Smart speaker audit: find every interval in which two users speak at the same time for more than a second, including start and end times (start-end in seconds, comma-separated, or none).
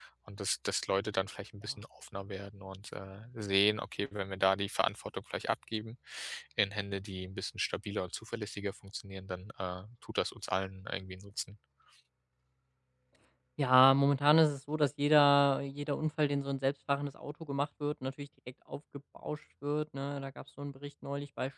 none